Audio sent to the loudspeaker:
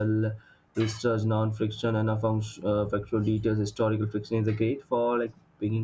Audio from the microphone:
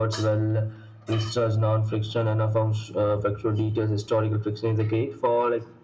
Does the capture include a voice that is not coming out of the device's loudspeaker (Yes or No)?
No